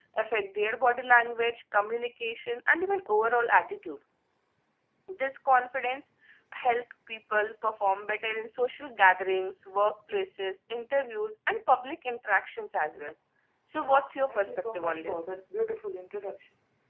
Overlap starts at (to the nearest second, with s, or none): 14 s